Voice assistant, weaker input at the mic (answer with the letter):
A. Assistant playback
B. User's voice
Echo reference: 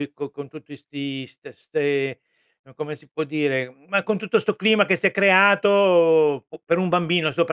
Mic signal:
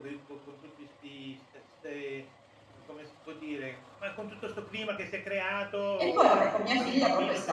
A